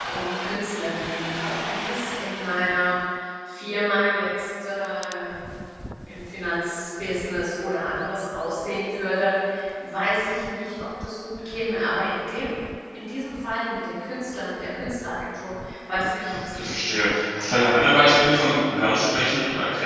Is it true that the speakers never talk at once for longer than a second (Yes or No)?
Yes